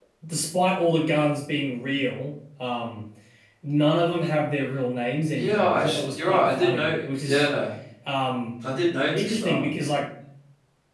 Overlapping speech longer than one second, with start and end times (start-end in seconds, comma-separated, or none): 5.3-7.5